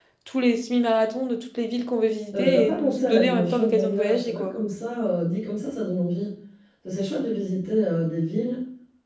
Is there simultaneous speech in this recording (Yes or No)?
Yes